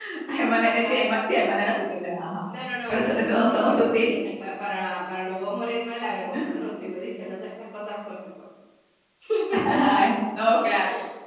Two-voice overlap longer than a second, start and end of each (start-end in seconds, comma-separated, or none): 2.9-4.2